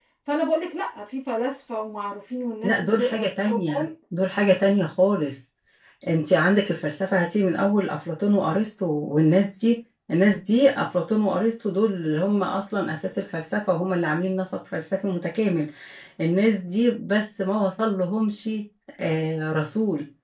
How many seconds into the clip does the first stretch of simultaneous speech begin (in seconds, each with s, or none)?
2.6 s